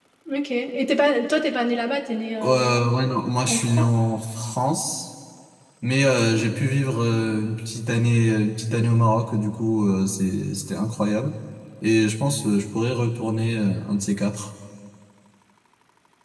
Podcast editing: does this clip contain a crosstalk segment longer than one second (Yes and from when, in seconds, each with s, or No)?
No